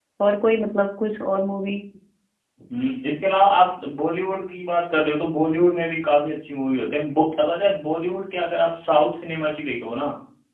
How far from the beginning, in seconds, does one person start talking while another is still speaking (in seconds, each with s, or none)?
none